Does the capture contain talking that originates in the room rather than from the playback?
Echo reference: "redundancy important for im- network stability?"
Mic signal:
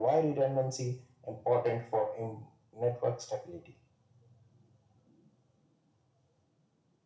No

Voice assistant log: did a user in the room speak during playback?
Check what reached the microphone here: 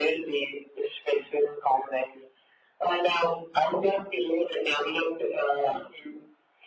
No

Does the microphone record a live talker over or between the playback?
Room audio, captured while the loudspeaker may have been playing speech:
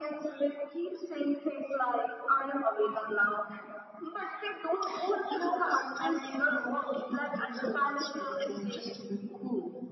No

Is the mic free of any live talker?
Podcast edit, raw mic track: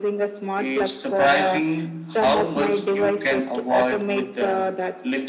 Yes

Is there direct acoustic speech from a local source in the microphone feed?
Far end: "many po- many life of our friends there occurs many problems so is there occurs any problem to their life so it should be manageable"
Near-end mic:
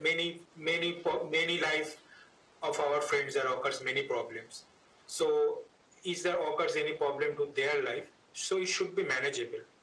No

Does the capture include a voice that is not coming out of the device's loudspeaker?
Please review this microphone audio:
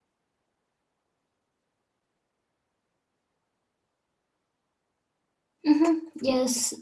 Yes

